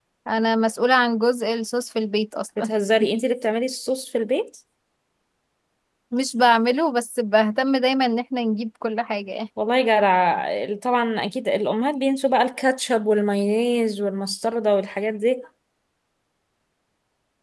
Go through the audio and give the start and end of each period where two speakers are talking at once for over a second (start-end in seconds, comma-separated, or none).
none